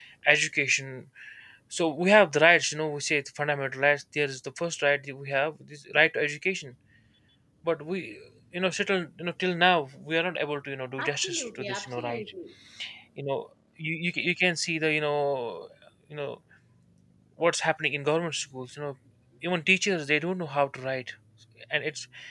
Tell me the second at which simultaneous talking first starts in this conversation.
11.0 s

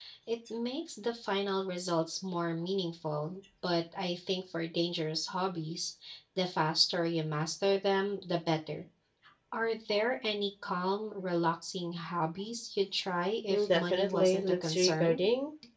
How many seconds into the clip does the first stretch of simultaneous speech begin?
13.5 s

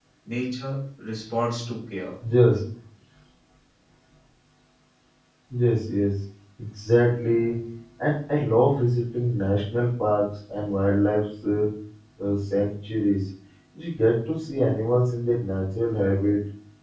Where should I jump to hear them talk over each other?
none

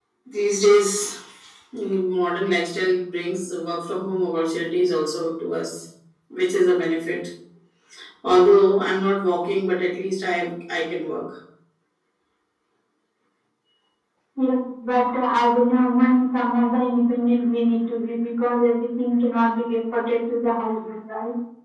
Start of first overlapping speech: none

